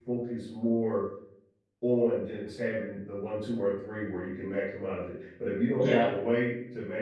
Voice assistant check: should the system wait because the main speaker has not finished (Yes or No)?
Yes